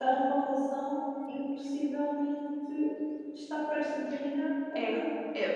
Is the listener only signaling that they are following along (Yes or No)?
No